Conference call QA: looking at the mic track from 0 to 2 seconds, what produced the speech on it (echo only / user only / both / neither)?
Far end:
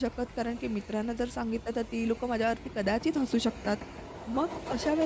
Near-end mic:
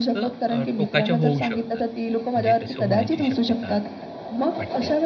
both